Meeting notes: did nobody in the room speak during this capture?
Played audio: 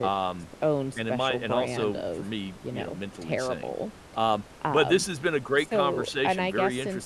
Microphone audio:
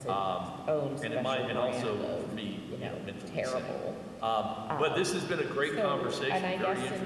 Yes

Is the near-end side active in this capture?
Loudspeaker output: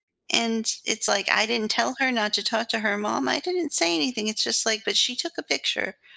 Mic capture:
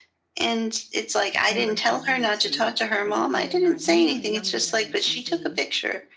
Yes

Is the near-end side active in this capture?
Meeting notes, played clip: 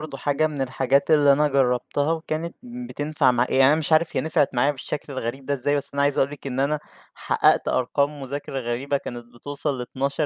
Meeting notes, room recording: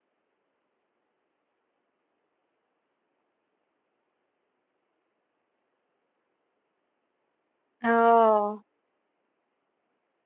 Yes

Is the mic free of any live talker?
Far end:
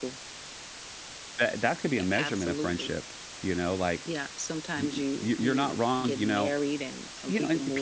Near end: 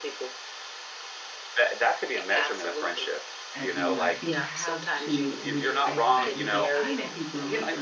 No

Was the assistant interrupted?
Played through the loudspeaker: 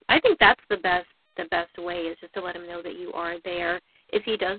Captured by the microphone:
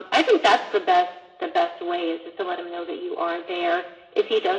No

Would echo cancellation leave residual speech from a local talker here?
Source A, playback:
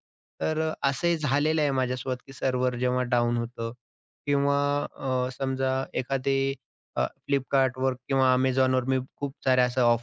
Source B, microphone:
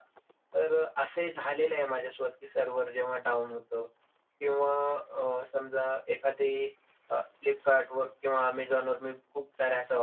No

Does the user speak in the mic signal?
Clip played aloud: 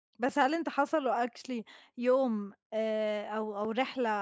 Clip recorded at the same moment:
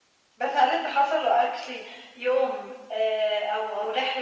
No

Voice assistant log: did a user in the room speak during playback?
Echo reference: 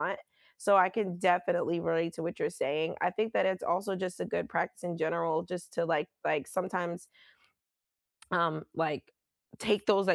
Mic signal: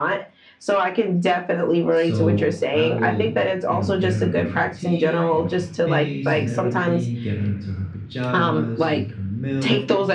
Yes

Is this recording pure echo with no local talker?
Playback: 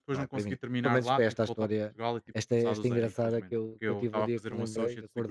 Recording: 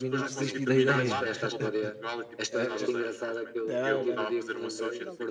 No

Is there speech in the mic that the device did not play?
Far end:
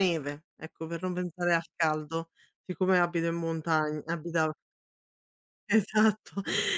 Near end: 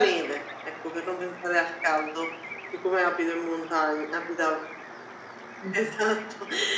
Yes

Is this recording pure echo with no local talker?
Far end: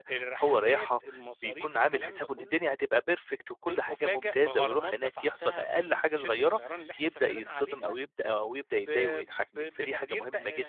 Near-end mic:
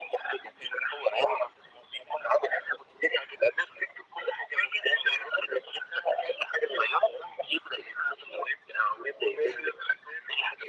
Yes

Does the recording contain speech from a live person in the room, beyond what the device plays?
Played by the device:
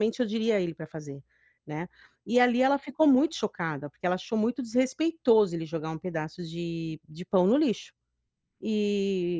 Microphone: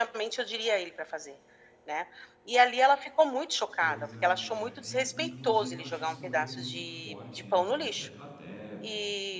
Yes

